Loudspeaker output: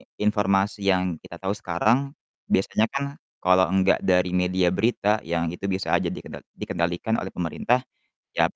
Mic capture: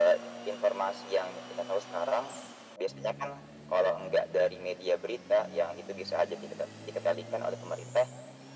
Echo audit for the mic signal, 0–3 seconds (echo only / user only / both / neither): echo only